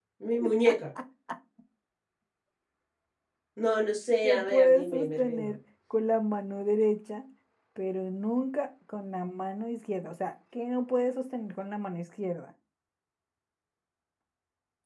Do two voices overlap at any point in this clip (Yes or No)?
Yes